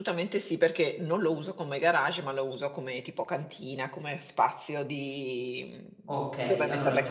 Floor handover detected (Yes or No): Yes